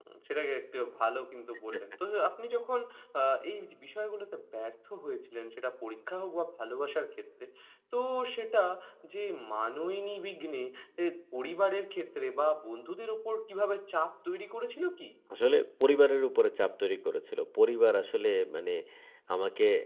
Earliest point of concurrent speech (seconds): none

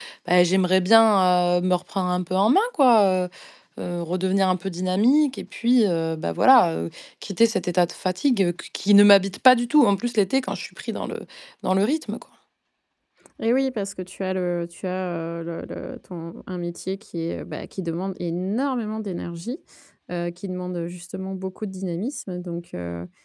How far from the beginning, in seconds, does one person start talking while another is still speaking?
none

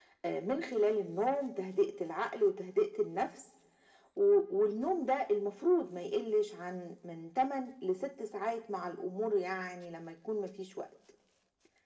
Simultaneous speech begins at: none

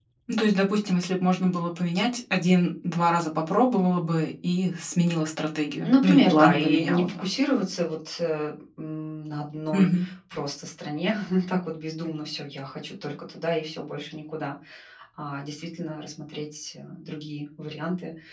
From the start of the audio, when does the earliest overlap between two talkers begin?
5.8 s

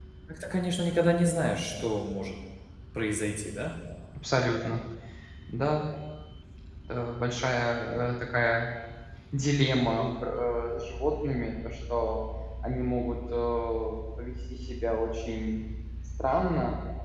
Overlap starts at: none

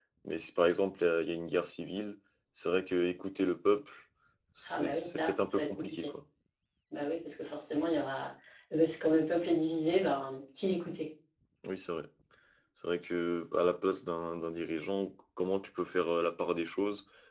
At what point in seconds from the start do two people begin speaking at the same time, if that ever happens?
4.7 s

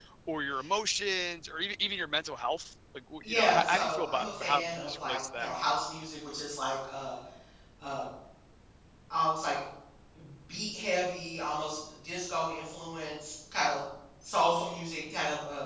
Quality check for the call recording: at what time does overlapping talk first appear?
3.2 s

